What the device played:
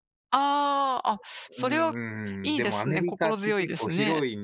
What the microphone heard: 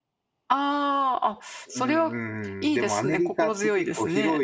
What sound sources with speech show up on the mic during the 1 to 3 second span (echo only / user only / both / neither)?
echo only